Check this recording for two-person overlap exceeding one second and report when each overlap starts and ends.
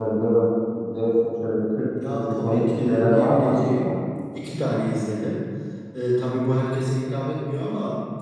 2.0-4.0

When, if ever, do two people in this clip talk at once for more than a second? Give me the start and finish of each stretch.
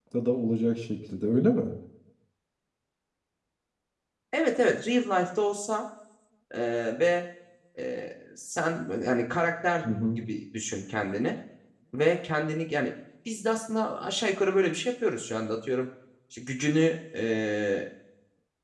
none

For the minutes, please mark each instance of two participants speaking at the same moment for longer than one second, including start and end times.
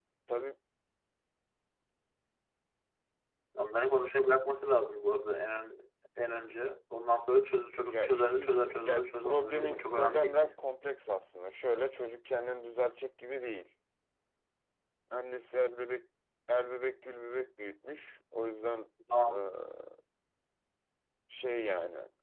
7.9-10.5

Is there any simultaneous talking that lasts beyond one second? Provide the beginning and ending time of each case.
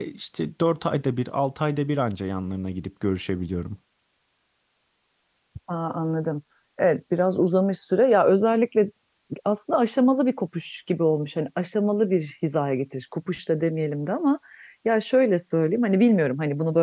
none

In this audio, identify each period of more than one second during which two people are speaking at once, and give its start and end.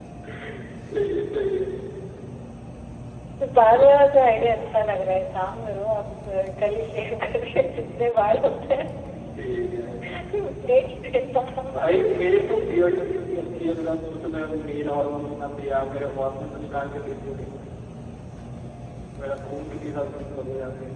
none

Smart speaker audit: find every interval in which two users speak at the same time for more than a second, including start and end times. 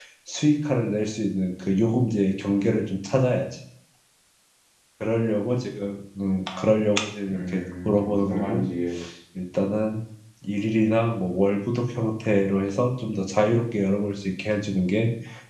7.4-8.6

